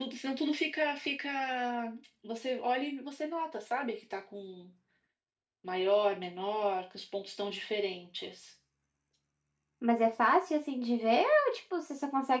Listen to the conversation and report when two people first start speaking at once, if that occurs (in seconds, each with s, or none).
none